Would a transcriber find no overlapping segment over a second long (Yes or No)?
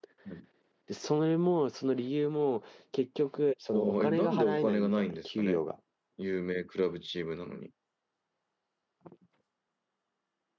No